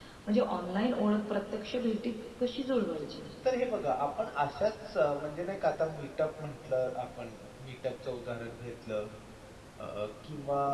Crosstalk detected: No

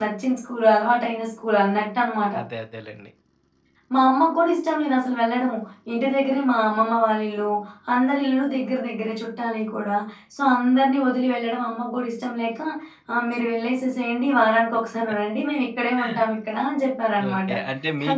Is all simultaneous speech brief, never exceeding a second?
Yes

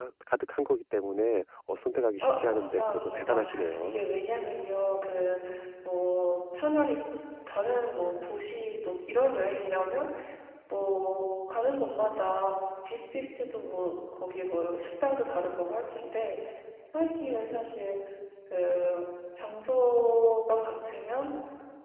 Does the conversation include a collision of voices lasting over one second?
Yes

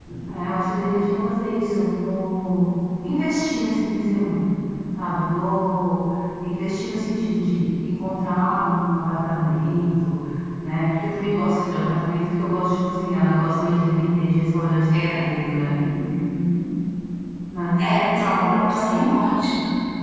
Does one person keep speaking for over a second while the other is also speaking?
Yes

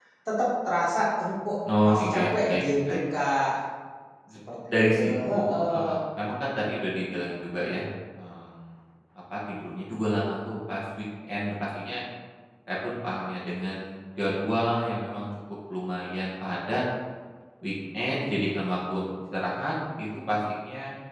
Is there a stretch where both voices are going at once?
Yes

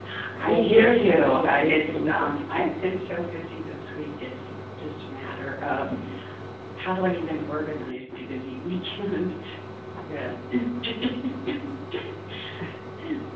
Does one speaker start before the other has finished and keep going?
Yes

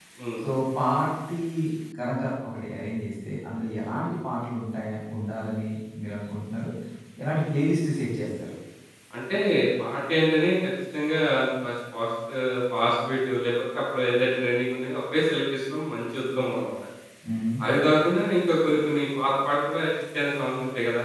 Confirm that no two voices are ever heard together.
Yes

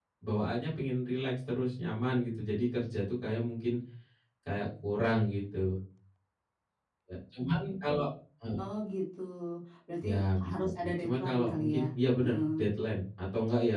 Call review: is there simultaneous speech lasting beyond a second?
Yes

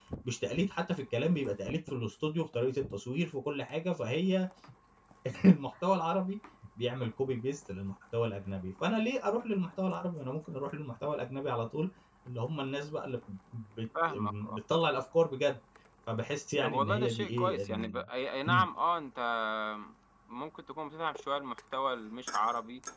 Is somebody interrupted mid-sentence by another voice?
Yes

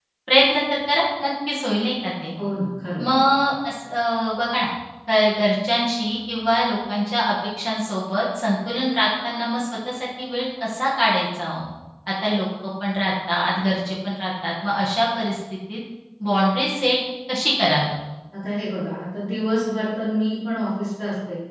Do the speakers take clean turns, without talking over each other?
Yes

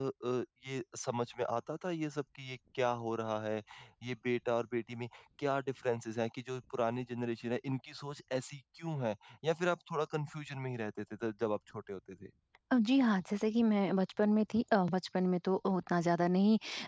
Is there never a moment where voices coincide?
Yes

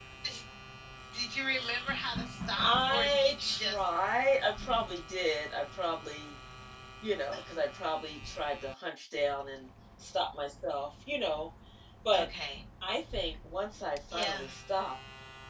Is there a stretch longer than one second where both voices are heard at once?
Yes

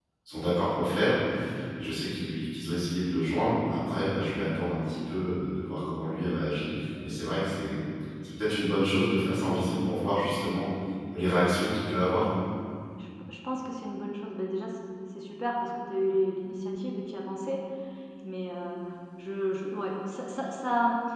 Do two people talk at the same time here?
No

